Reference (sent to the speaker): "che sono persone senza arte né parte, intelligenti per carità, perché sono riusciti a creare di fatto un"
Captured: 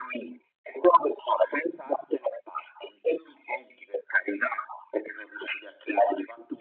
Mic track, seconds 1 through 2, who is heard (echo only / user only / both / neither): echo only